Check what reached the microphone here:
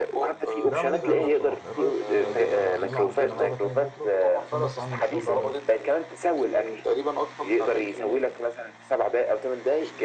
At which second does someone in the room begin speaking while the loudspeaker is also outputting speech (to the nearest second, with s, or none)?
1 s